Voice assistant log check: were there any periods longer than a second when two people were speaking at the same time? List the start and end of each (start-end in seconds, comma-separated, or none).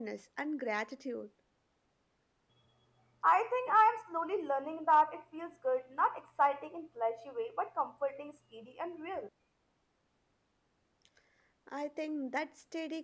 none